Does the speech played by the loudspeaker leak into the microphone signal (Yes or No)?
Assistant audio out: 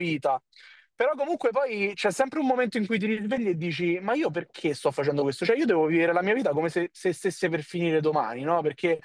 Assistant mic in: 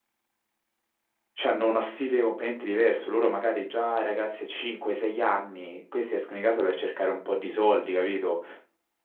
No